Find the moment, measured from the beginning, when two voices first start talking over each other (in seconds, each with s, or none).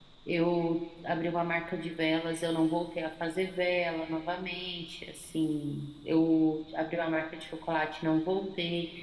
none